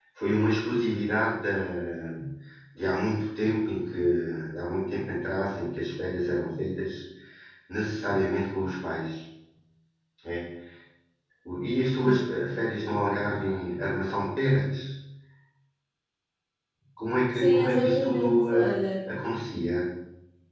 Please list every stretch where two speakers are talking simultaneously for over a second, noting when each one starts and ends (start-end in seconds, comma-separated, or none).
17.4-18.9